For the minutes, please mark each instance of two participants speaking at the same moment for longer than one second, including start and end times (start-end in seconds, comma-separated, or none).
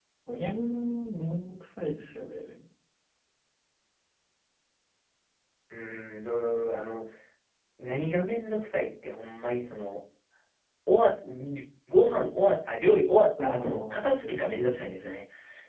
13.4-14.8